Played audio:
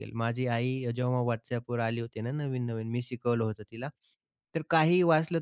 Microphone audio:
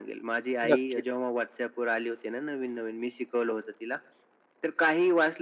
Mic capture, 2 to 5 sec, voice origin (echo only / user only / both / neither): echo only